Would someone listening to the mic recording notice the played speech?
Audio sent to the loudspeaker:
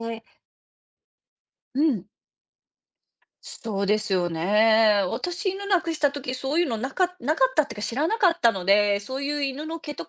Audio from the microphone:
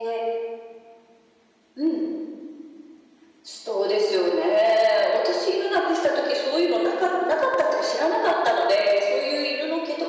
Yes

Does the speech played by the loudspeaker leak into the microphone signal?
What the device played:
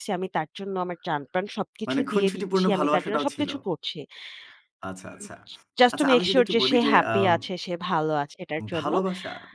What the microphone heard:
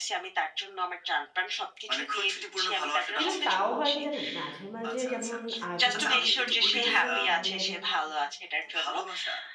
Yes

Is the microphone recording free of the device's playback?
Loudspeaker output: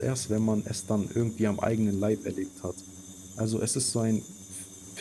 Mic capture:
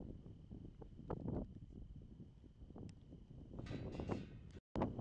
Yes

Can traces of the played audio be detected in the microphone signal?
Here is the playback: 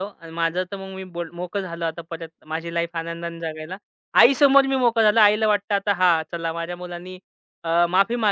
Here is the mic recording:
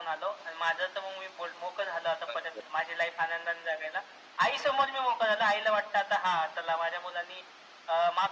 Yes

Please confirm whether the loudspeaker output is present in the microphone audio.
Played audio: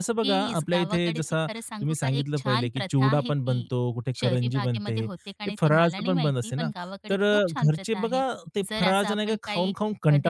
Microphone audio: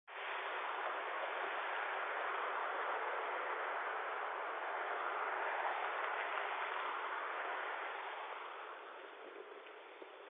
No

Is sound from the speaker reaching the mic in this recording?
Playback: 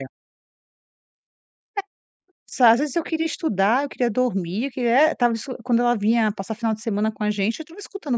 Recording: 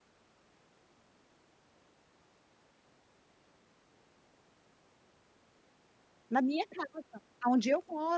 No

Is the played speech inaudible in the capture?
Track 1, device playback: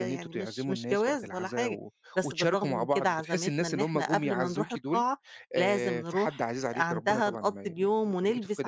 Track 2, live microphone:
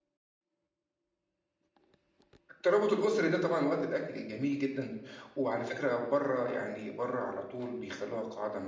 Yes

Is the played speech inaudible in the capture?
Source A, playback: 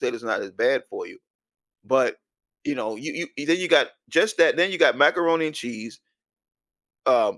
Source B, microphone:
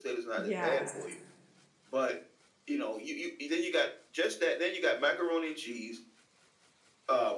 No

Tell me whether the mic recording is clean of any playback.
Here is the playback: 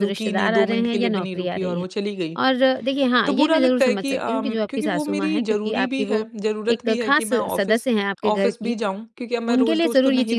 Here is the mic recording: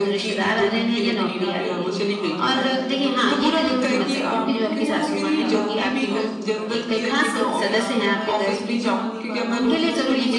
No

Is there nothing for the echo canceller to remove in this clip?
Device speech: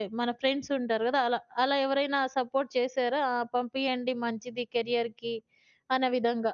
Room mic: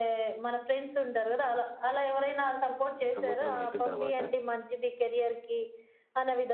No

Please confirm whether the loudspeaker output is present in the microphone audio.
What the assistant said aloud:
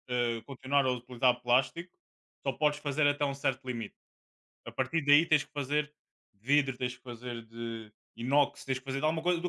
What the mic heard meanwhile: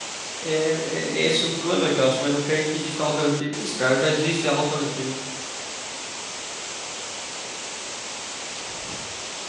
No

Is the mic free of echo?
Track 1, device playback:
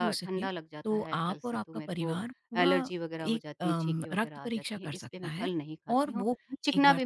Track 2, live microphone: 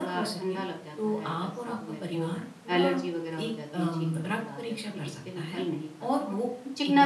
No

